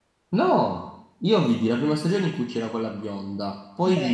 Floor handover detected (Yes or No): No